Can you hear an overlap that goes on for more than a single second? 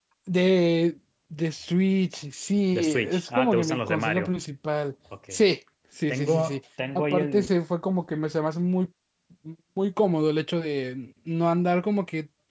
Yes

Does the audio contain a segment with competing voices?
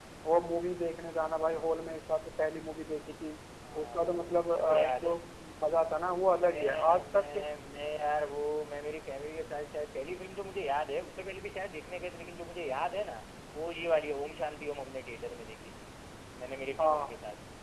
Yes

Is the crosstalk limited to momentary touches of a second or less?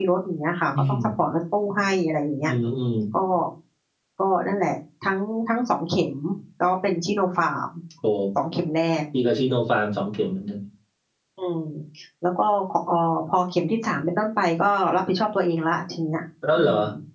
Yes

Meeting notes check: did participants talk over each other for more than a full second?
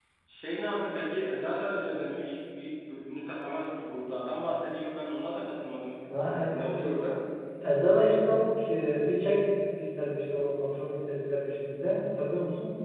No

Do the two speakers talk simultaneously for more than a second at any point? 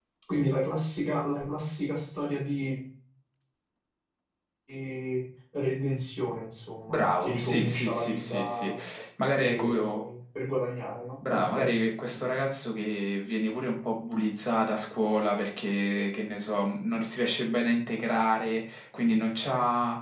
Yes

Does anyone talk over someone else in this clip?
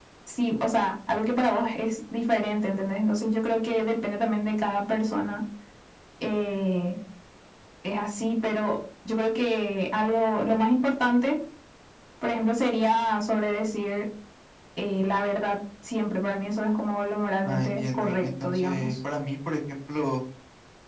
Yes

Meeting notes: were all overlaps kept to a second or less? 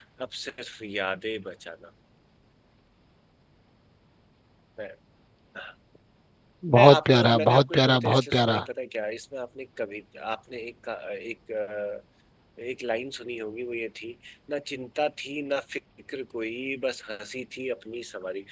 No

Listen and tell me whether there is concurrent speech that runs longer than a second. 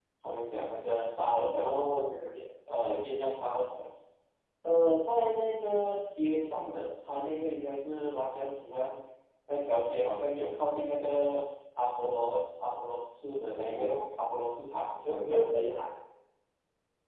No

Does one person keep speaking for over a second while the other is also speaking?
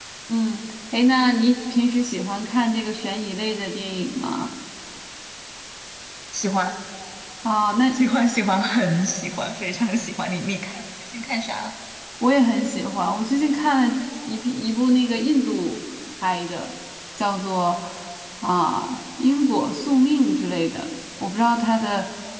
No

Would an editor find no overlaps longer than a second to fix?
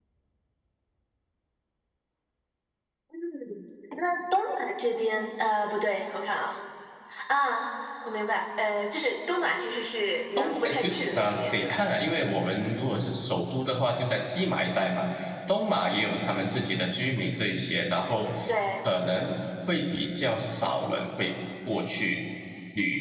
No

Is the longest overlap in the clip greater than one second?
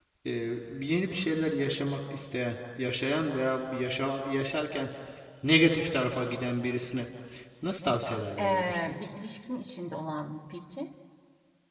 No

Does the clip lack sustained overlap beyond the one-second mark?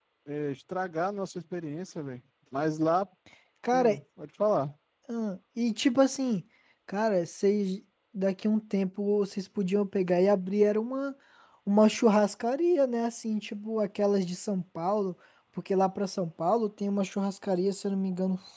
Yes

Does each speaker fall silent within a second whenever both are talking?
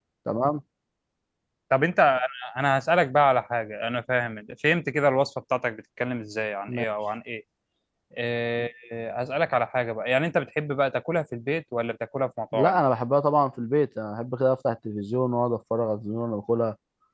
Yes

